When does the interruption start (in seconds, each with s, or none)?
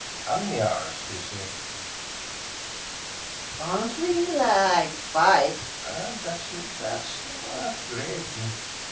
none